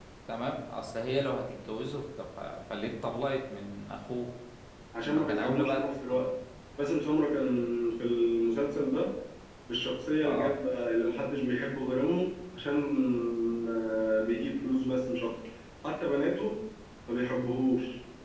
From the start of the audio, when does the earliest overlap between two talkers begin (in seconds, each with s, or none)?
5.0 s